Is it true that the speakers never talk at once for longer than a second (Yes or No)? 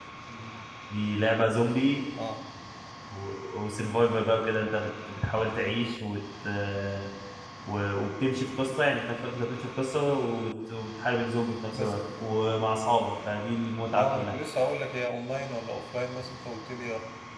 Yes